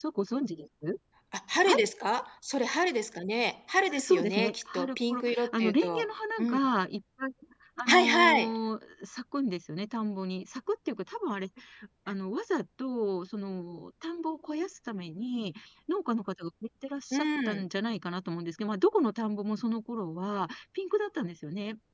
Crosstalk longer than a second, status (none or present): present